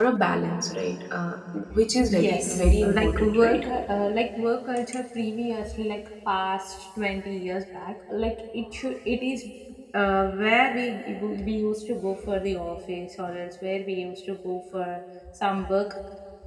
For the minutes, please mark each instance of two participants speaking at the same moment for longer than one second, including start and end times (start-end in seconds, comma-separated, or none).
2.1-3.6